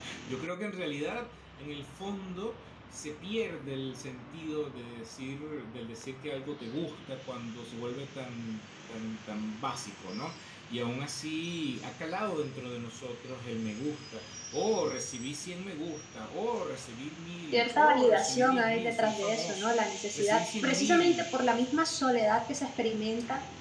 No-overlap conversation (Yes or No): No